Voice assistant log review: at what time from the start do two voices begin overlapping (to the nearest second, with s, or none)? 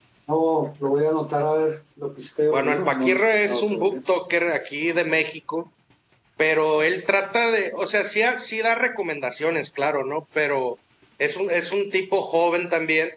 3 s